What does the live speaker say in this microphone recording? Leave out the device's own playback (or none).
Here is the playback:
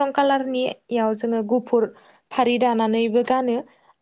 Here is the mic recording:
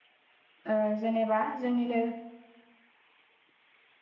ओ जेनेबा जोंनिनो